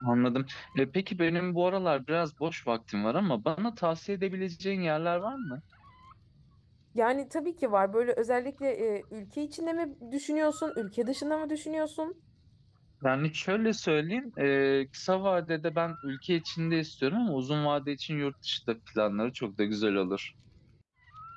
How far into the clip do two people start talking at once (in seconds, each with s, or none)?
none